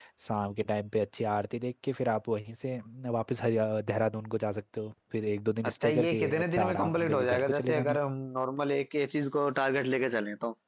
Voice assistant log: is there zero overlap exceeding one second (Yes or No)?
No